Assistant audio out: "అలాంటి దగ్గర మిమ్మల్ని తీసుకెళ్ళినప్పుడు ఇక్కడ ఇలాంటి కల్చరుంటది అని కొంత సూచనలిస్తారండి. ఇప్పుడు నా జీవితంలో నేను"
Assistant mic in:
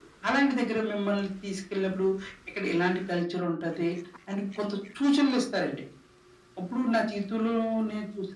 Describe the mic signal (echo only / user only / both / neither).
echo only